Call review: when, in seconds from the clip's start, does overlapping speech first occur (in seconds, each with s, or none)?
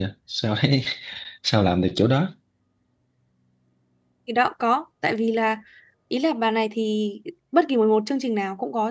none